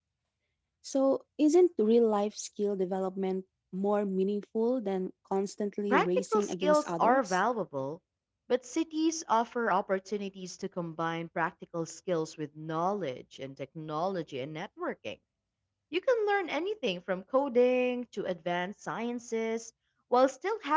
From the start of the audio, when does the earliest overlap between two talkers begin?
5.9 s

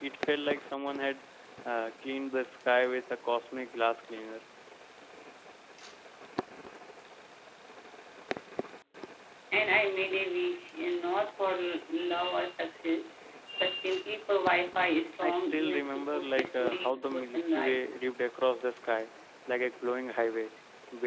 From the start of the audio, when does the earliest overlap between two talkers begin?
15.2 s

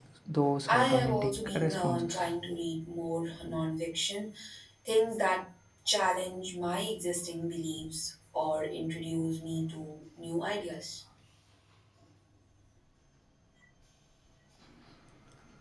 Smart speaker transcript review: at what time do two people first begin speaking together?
0.7 s

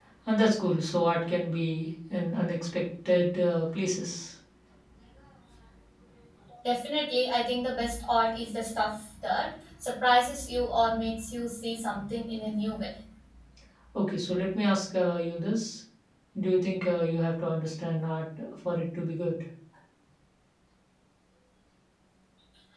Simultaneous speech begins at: none

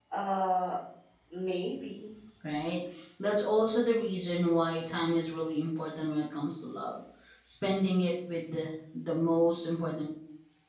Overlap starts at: none

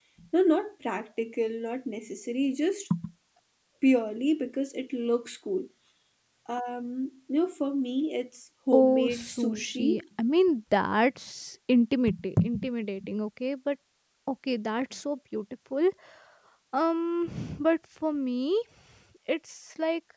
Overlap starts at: 8.7 s

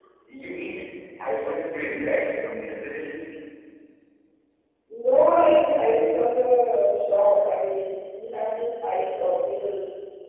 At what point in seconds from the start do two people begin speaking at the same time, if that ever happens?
none

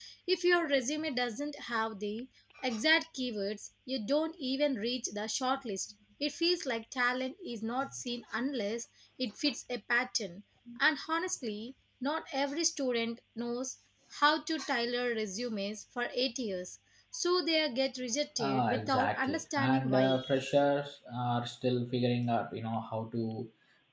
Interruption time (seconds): 18.4 s

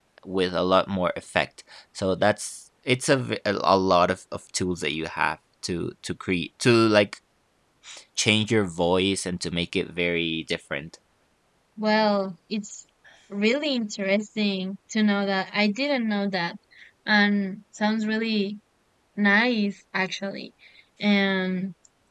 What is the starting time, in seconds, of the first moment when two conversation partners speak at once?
none

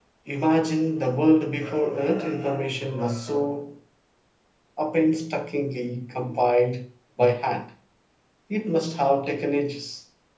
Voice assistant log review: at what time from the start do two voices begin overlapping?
none

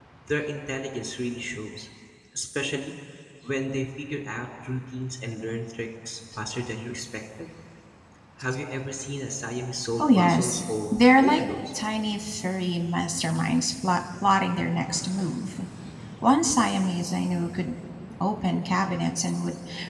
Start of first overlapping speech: 10.0 s

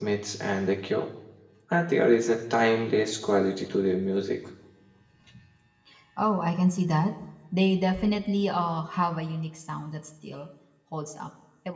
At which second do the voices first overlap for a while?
none

